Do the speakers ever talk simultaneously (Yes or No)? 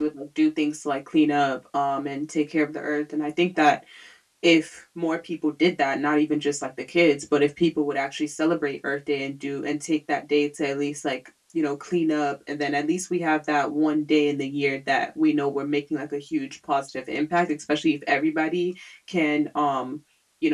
No